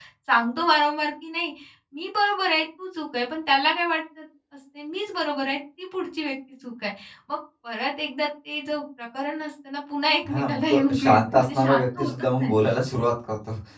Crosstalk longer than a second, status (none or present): present